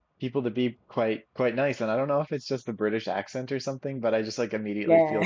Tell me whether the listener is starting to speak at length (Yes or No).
No